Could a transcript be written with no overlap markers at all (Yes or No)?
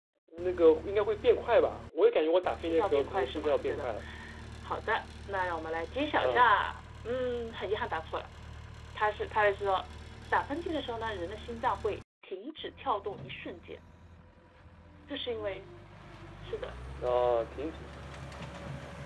No